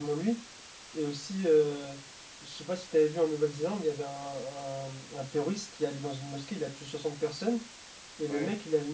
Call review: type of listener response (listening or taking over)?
listening